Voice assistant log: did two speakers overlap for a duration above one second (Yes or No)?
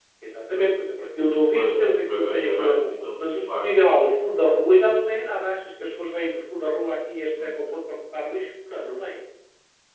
Yes